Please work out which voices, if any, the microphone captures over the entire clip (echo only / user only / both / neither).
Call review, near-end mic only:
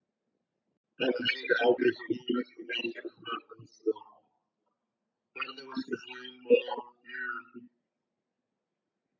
echo only